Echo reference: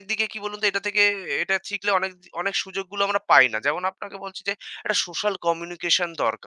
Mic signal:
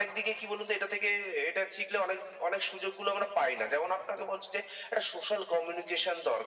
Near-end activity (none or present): none